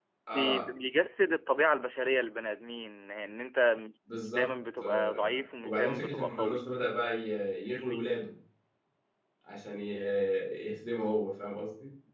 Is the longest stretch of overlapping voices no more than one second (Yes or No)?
No